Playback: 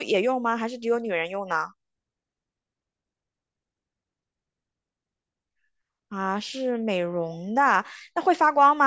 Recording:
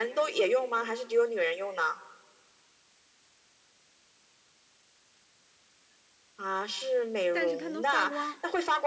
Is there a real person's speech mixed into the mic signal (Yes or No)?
Yes